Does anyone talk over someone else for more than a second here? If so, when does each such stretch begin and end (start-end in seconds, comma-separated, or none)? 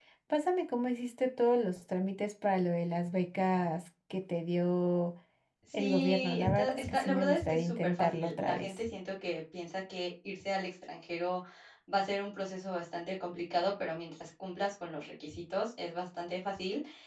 5.8-8.7